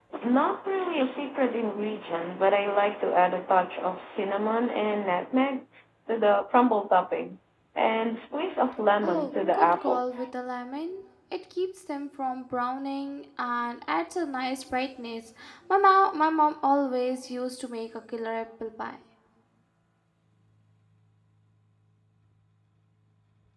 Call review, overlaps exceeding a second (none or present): present